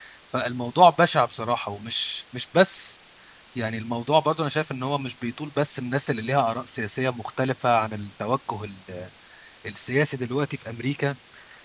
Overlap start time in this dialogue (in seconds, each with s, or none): none